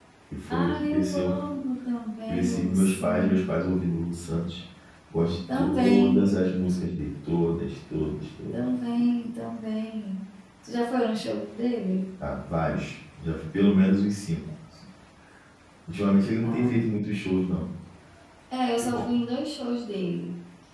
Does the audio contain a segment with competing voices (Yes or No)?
Yes